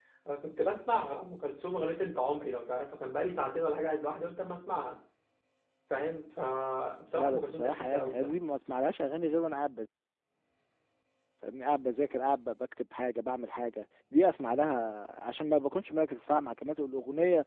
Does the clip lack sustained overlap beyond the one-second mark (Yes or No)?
No